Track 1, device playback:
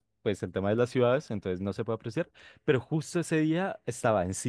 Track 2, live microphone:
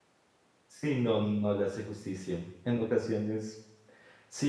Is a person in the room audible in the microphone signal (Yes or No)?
Yes